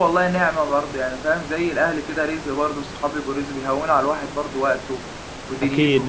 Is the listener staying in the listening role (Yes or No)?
No